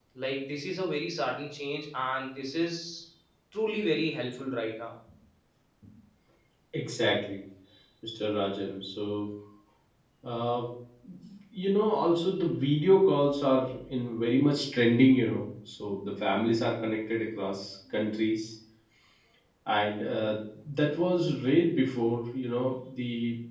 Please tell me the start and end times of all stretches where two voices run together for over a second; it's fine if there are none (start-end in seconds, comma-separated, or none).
none